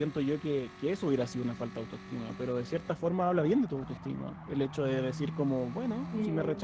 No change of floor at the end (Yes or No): Yes